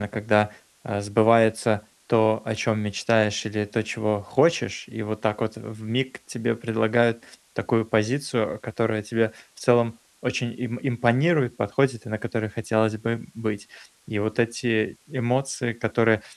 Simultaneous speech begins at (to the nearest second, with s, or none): none